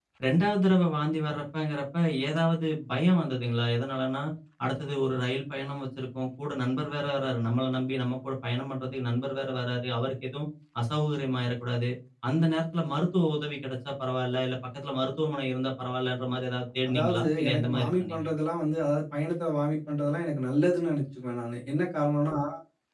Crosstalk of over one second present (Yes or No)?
Yes